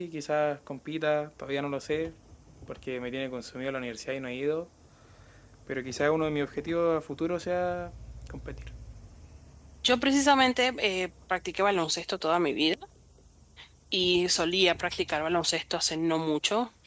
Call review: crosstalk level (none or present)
none